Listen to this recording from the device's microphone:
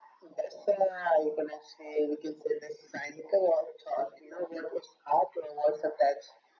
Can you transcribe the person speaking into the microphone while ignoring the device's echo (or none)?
none